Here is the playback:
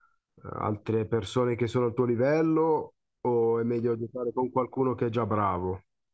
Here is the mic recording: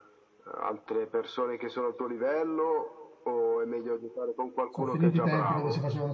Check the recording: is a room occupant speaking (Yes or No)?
Yes